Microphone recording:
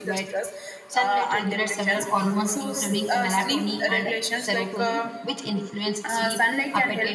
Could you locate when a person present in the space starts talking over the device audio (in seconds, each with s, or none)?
none